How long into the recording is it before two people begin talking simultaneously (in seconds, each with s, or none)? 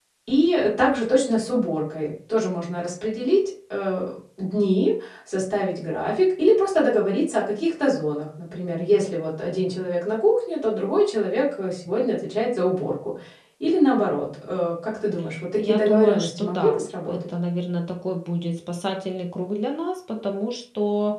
15.6 s